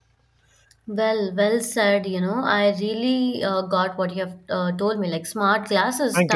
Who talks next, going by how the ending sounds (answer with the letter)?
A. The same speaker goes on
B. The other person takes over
A